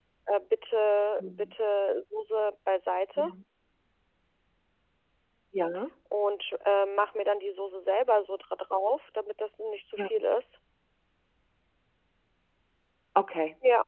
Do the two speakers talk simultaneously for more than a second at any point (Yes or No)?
No